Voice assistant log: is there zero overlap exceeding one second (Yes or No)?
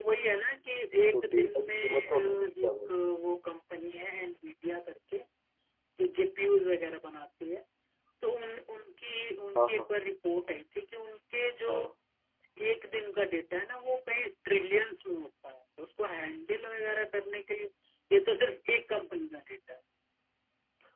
No